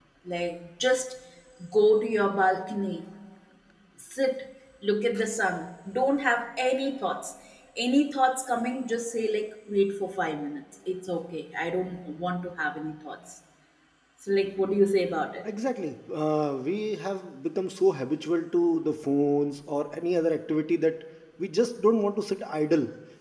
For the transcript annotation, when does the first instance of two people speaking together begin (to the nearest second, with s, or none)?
none